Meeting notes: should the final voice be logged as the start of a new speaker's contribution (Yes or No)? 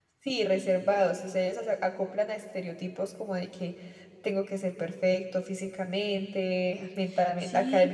Yes